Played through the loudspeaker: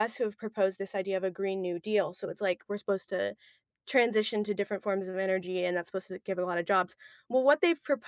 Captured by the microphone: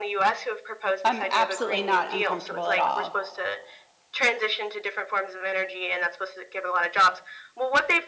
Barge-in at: 1.0 s

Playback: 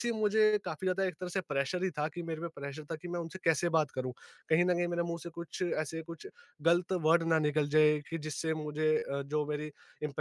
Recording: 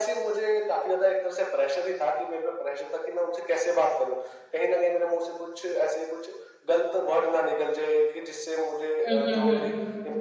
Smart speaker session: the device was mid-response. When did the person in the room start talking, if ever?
9.1 s

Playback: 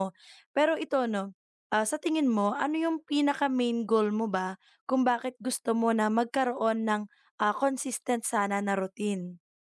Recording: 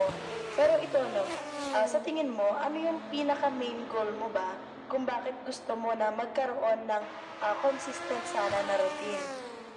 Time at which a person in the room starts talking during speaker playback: none

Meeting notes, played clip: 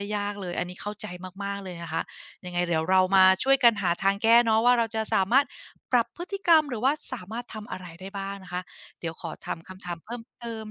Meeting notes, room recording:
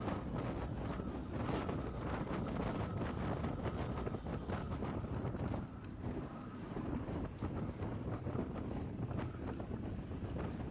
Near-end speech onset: none

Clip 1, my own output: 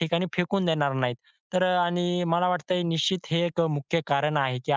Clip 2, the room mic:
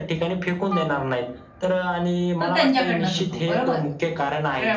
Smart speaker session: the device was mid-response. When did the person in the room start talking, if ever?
2.4 s

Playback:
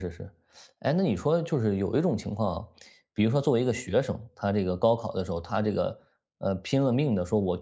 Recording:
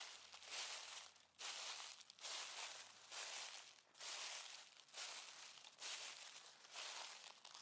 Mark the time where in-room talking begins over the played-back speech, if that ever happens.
none

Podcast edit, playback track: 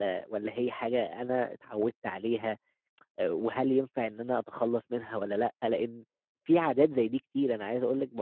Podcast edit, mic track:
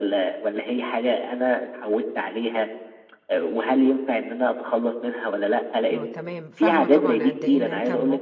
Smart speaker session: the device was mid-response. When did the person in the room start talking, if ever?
5.9 s

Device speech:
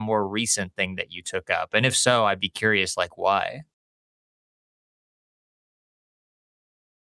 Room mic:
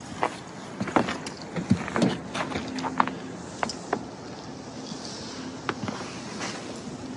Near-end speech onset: none

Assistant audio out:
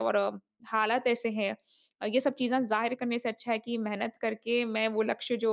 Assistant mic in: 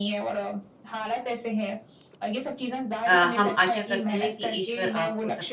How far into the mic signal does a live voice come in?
3.0 s

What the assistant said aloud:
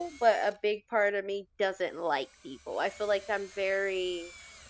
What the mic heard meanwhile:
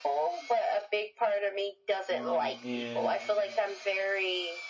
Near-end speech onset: 2.2 s

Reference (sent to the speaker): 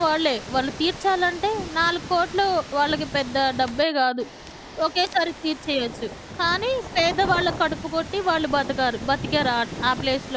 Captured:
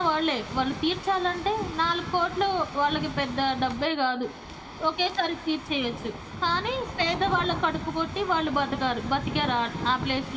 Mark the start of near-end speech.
none

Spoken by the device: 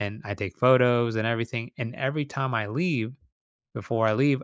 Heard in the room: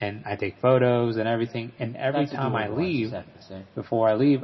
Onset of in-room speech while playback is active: 2.1 s

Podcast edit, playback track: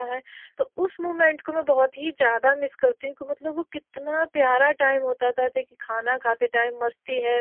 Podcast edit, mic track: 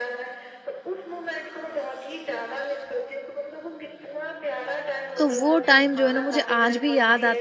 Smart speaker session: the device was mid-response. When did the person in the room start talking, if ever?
5.2 s

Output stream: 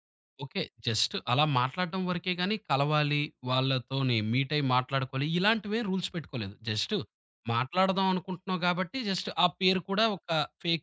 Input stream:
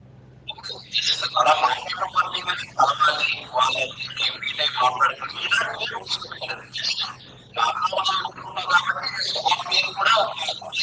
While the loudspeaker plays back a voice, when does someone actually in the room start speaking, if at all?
none

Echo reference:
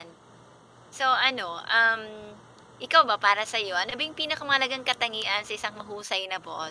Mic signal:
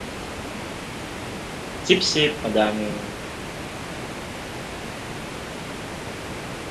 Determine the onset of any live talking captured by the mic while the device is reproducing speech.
1.9 s

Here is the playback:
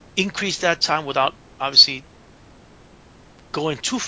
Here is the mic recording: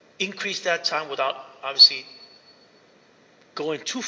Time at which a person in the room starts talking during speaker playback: none

